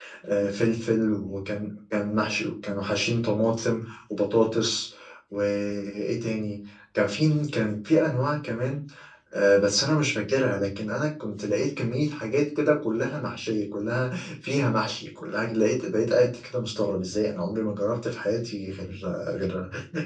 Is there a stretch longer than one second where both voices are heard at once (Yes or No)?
No